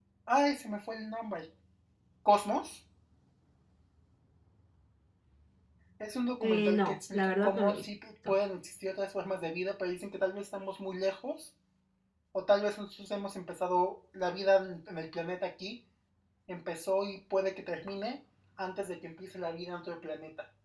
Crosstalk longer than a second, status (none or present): present